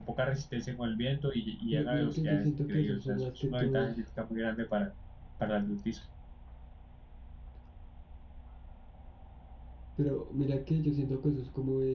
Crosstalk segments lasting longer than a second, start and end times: 1.7-3.9

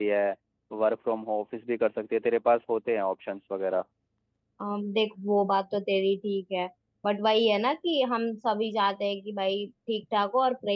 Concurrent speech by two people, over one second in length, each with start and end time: none

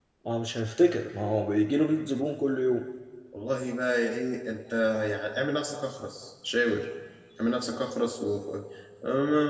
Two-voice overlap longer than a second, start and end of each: none

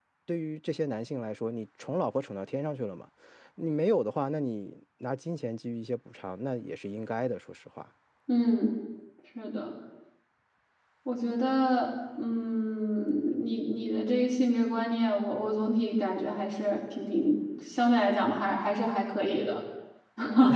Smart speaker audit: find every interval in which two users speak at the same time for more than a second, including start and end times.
none

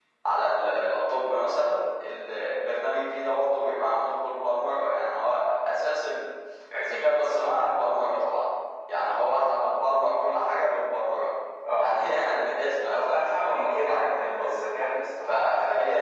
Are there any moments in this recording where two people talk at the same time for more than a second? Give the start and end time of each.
12.9-14.6

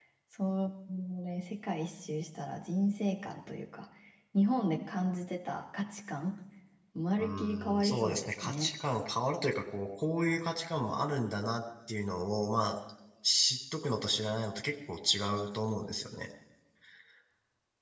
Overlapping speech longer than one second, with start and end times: 7.2-8.7

